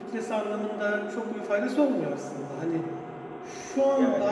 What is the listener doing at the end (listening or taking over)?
listening